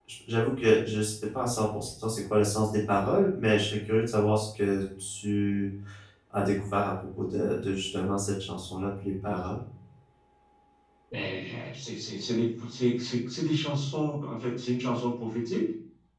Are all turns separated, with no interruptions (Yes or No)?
Yes